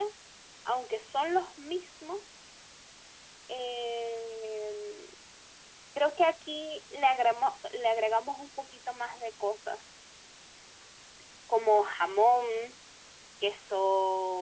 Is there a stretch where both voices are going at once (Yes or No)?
No